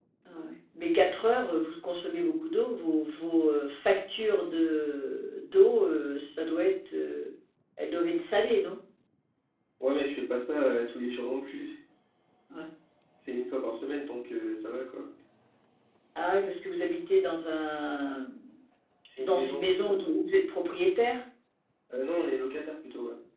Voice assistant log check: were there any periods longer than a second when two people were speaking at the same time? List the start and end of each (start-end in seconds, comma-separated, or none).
none